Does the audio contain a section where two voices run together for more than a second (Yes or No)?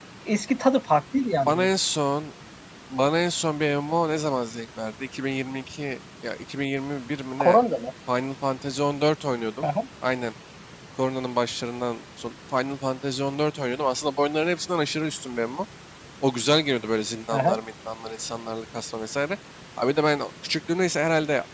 No